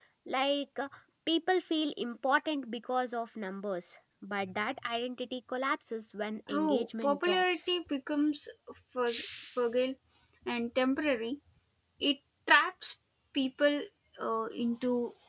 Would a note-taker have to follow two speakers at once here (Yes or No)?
Yes